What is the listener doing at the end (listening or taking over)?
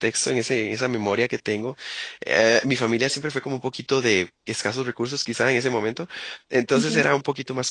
listening